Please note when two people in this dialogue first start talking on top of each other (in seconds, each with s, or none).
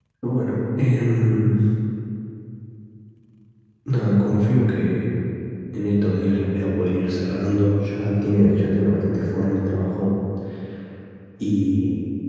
none